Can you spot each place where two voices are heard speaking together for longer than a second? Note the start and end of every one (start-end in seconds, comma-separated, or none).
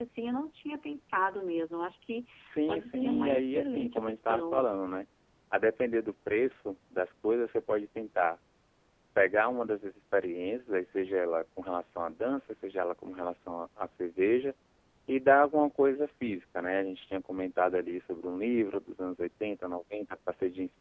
2.7-4.7